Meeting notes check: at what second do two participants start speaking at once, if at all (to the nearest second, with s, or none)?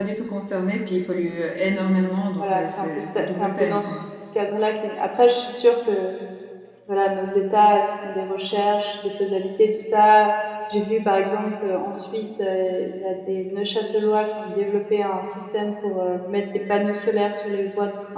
2 s